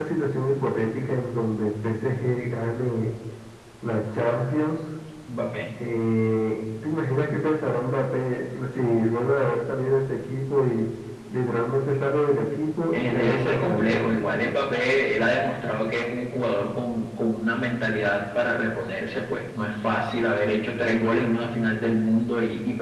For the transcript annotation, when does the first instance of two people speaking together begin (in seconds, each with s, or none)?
12.9 s